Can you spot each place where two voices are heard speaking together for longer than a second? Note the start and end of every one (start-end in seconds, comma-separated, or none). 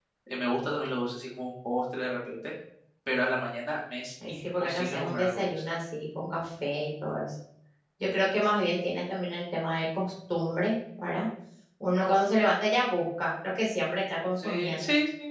4.3-5.5